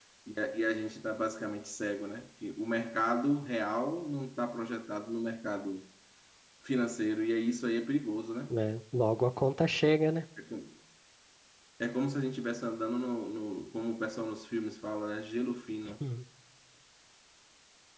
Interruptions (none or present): none